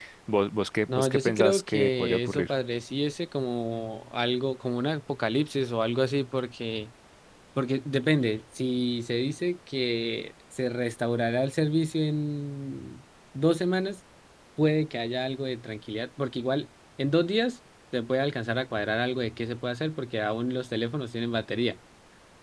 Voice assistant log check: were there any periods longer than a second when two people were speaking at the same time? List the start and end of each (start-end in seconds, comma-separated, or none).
0.9-2.5